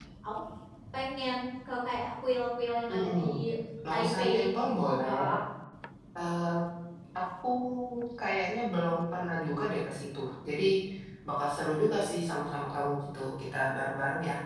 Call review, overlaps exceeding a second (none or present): present